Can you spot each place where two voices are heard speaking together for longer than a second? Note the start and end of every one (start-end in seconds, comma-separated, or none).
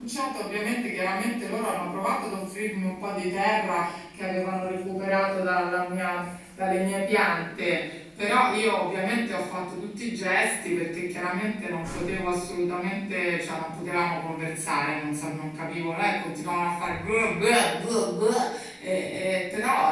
none